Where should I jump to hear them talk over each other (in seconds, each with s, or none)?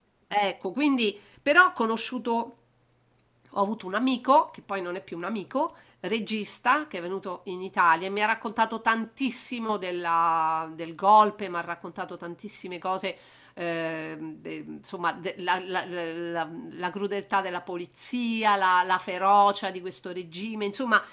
none